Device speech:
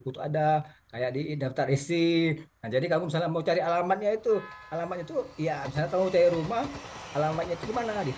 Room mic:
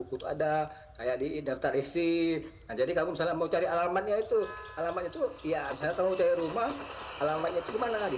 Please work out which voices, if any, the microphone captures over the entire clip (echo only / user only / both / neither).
echo only